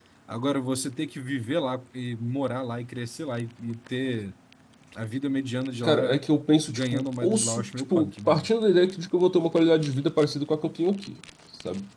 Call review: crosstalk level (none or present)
present